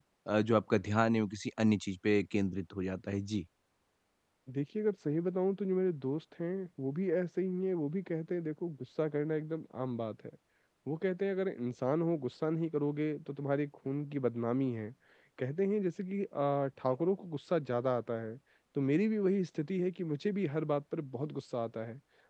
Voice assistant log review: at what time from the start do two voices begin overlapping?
none

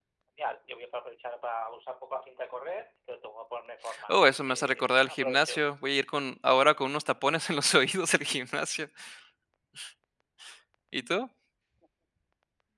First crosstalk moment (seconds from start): 4 s

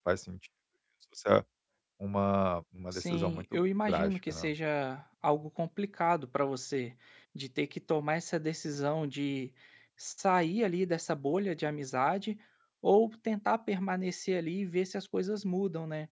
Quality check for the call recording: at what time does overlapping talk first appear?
3 s

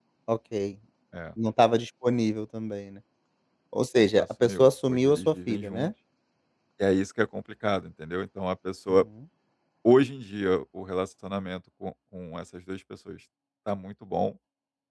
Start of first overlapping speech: 4 s

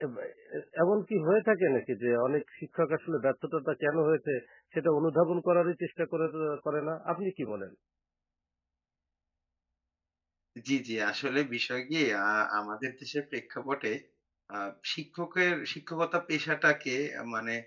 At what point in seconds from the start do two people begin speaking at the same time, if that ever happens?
none

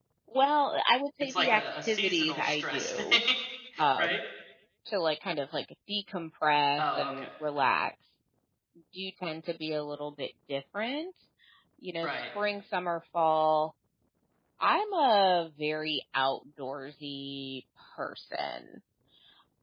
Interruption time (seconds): 1 s

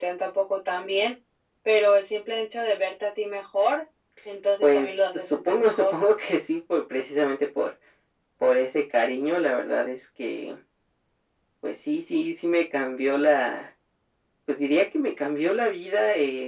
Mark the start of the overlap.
5 s

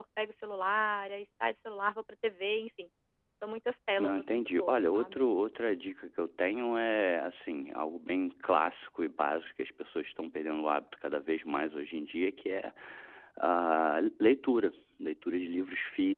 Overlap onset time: 4 s

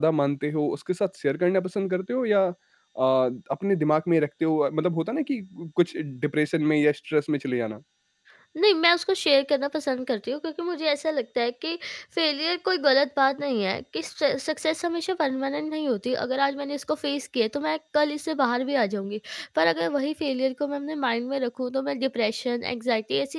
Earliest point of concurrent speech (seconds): none

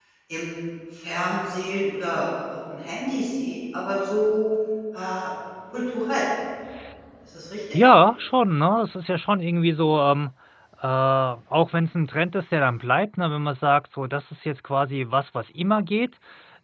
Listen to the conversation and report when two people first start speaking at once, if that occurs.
none

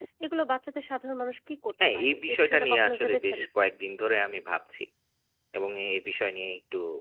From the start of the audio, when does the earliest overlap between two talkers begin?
2 s

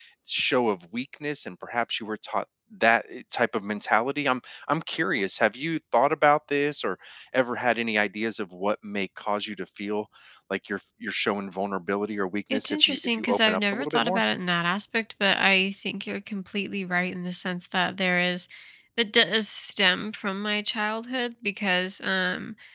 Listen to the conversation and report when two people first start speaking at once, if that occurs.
13 s

